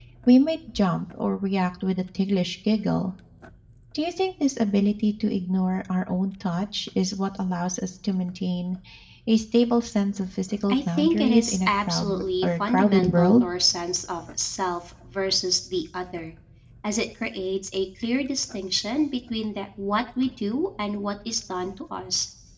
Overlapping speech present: Yes, from 10.7 s

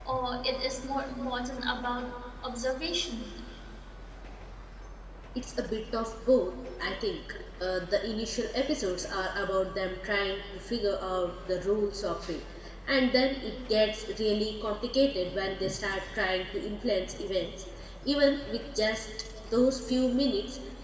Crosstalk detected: No

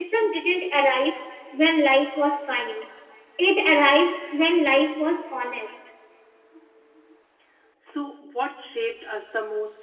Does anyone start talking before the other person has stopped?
No

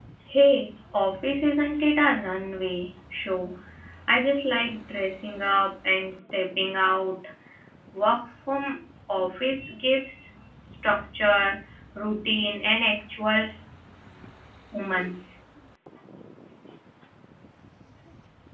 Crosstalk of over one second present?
No

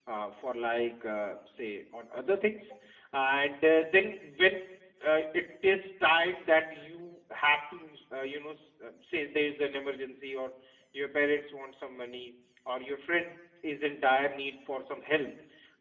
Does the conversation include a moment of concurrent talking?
No

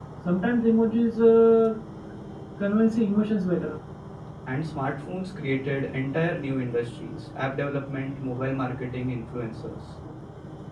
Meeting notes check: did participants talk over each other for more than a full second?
No

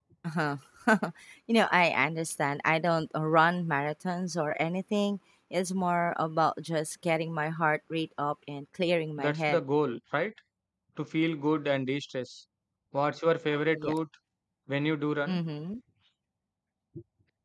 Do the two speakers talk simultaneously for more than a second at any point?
No

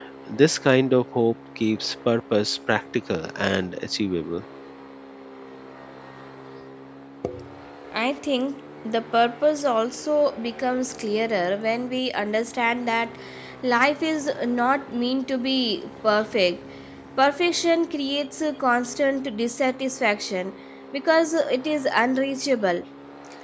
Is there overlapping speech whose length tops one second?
No

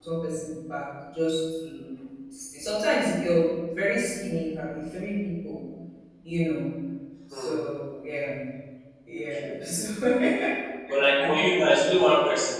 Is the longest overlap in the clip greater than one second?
No

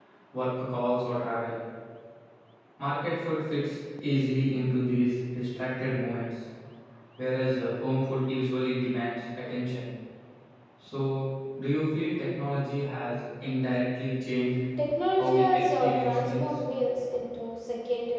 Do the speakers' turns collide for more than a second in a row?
Yes, from 15.2 s

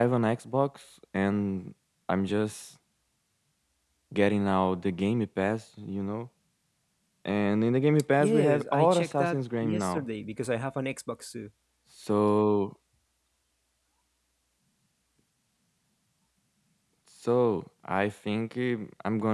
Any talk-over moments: Yes, from 8.2 s

